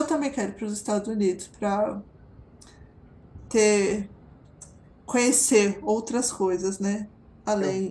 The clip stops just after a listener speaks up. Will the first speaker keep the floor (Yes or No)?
No